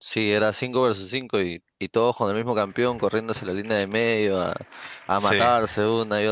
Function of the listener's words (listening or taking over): listening